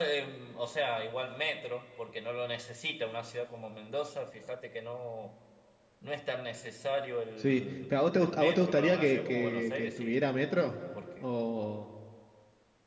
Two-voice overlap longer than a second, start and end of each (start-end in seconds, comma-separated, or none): 7.4-10.2